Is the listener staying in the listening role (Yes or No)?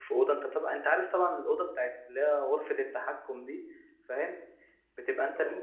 Yes